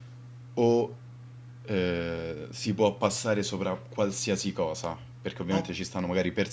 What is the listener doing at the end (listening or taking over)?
listening